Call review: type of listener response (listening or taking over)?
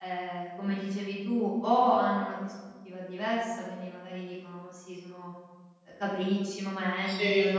listening